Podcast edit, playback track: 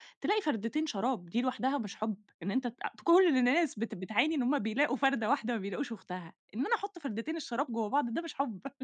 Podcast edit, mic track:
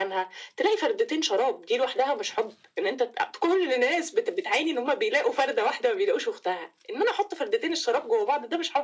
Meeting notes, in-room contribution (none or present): none